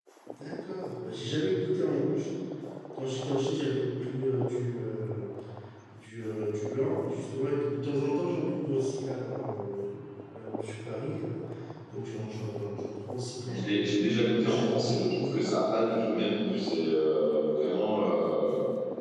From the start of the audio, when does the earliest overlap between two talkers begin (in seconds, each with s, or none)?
13.4 s